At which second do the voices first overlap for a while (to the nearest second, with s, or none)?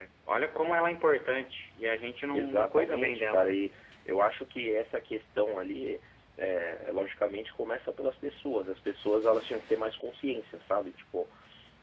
2 s